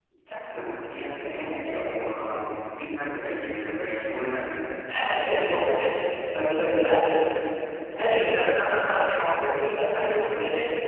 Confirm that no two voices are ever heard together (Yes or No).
Yes